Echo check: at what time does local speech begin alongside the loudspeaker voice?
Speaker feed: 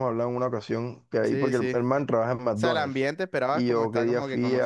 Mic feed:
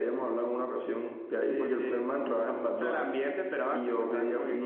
none

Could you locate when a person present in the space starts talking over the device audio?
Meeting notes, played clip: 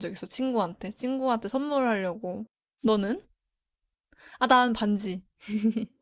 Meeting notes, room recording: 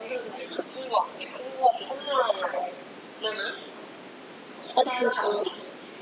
none

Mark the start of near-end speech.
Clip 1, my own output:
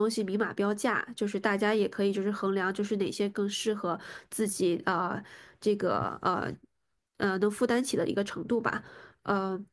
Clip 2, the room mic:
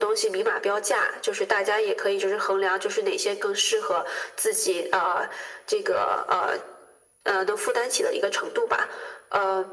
none

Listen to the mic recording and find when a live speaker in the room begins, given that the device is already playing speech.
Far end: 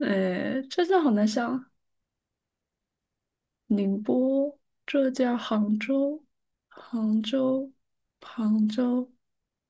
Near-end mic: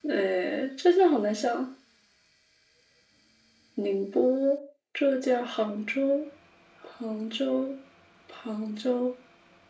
none

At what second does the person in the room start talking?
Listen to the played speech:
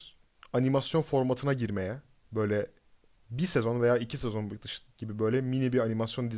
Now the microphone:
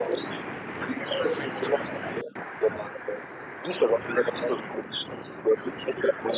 none

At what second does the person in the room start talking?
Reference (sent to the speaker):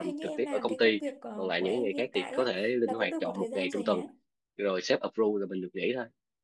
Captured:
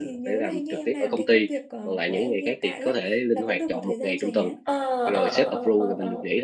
4.6 s

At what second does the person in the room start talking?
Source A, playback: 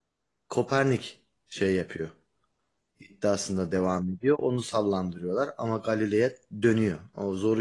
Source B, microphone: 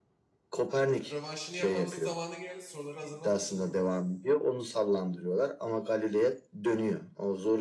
1.1 s

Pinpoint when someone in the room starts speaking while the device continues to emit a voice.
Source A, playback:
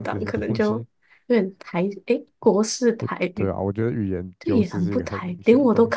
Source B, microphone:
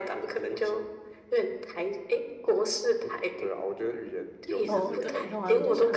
4.7 s

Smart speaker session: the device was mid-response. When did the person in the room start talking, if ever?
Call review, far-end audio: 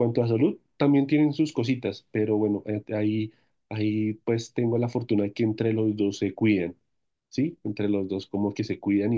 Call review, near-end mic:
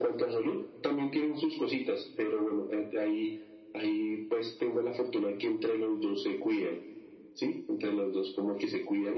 none

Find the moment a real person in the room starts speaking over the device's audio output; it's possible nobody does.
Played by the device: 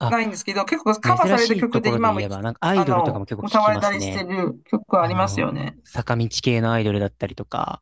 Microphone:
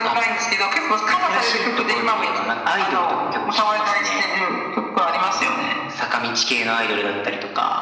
none

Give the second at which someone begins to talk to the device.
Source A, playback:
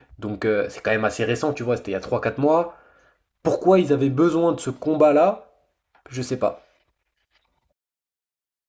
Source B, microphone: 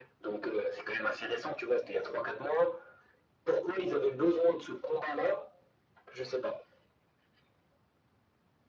none

